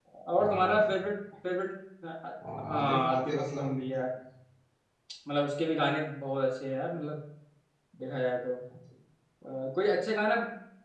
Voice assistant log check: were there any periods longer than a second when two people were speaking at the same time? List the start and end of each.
2.6-3.8

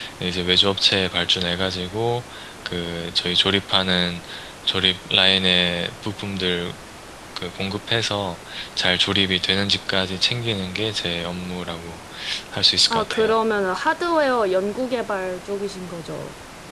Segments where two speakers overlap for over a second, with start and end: none

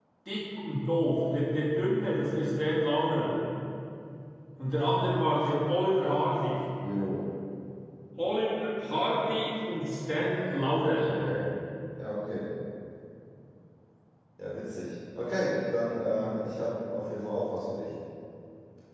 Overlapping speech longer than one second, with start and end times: none

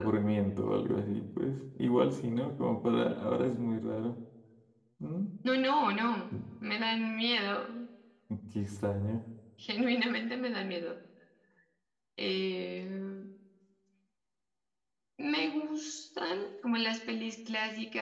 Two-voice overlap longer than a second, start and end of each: none

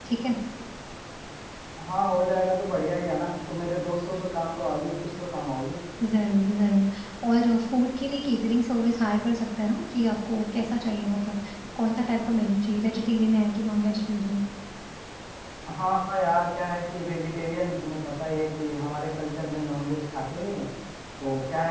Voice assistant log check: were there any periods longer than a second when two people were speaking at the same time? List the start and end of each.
none

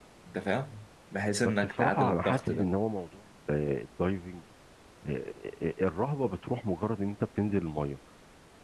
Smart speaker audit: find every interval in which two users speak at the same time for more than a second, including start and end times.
1.4-2.7

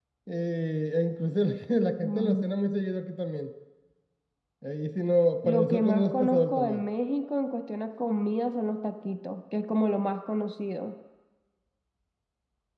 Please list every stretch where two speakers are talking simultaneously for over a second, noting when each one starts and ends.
5.5-6.8

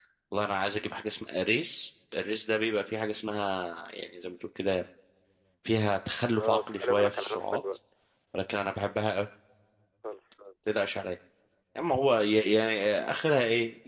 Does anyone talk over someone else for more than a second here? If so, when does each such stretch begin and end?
6.3-7.6

